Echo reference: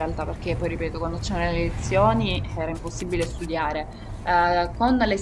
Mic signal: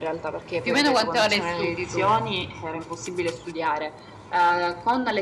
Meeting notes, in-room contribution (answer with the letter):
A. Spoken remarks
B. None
A